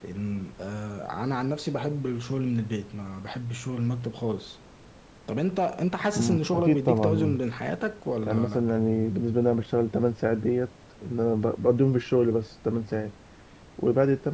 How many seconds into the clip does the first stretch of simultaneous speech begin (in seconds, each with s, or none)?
6.2 s